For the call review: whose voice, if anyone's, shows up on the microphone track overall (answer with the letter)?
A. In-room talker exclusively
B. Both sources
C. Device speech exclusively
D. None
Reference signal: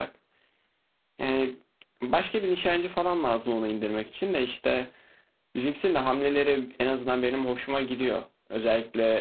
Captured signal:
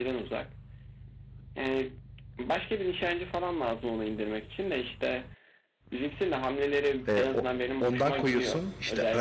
B